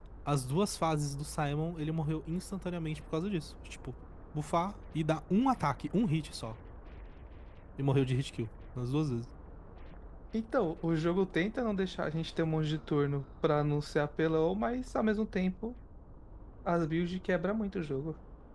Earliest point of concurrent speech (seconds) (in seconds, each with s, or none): none